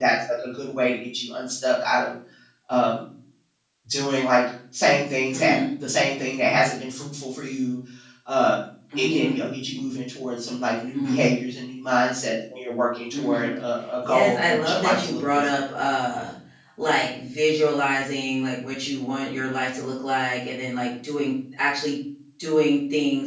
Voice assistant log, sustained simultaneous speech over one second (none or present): present